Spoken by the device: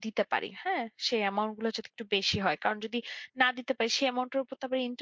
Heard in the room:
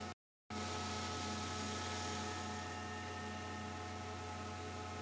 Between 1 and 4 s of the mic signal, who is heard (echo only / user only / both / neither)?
neither